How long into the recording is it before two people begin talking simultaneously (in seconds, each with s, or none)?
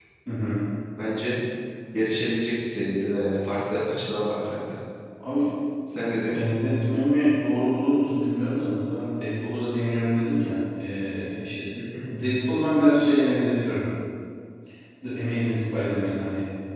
none